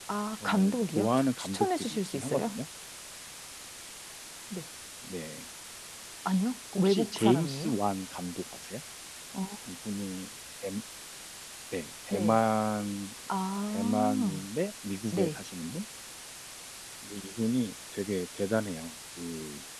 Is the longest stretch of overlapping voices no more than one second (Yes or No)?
No